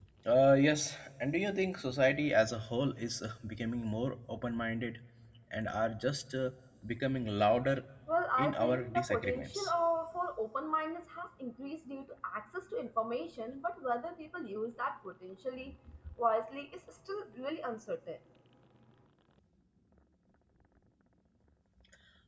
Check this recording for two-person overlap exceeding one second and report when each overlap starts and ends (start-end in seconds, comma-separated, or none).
8.4-9.7